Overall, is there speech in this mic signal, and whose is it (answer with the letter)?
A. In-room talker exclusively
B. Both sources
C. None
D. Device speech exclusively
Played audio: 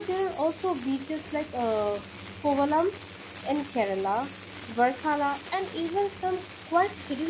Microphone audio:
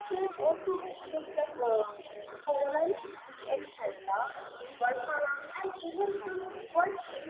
B